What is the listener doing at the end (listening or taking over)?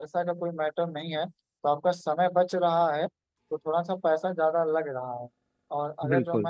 listening